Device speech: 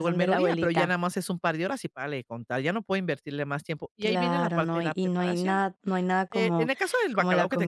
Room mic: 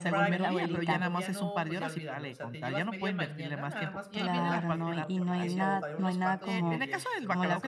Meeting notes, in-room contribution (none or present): present